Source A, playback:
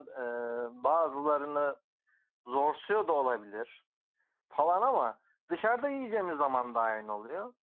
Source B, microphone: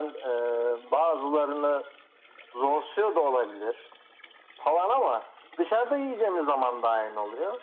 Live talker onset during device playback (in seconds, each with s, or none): none